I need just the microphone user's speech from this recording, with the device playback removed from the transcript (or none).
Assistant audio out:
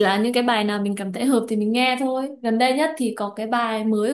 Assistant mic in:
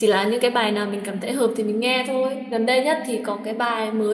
none